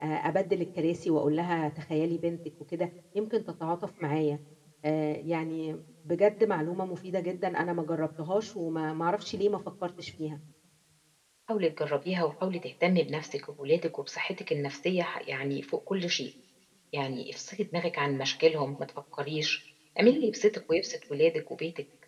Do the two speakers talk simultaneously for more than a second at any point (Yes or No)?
No